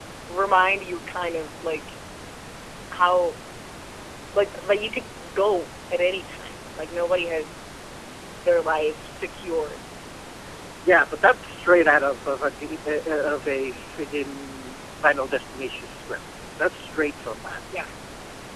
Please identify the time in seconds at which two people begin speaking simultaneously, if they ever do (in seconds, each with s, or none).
none